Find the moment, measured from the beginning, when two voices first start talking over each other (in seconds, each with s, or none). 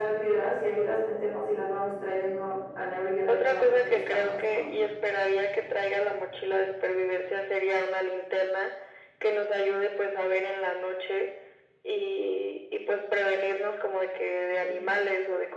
3.3 s